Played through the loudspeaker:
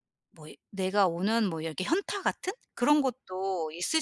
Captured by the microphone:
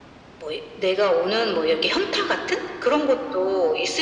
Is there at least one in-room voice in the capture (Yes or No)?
No